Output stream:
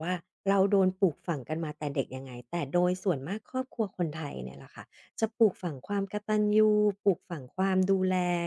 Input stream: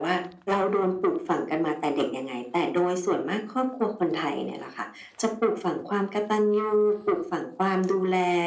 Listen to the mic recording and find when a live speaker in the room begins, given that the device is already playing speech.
none

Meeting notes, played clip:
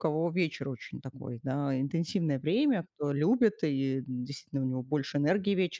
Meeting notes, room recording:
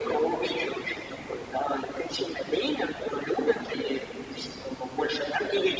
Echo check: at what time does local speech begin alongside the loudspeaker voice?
none

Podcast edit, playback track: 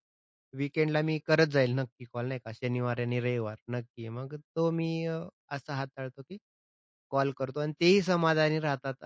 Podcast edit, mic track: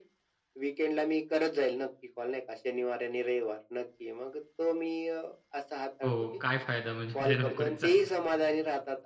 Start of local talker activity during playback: 6.0 s

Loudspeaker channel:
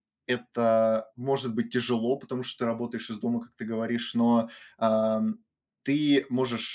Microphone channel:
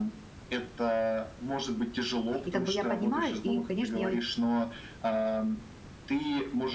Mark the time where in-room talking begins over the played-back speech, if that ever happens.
2.4 s

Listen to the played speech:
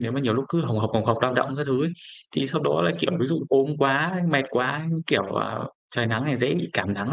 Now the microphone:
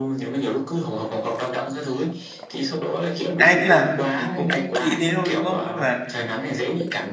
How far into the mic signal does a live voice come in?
3.4 s

